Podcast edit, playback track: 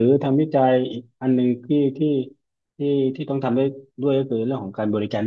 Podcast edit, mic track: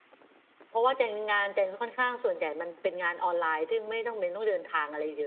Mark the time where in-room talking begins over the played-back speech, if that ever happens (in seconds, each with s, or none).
0.7 s